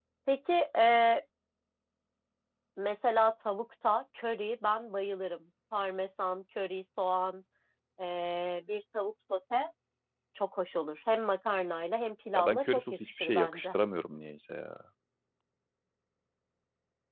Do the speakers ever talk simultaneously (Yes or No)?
Yes